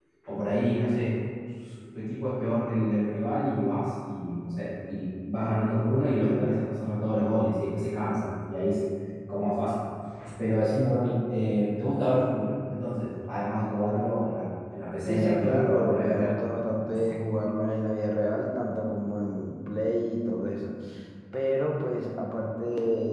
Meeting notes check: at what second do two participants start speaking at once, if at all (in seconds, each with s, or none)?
15.1 s